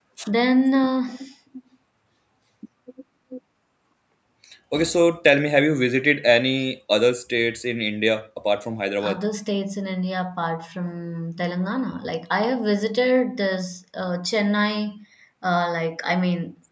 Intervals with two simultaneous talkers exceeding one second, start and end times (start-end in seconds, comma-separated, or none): none